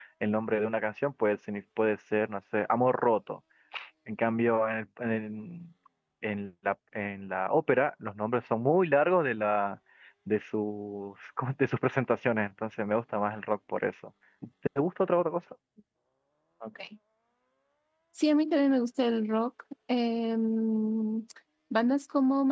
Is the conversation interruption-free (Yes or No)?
Yes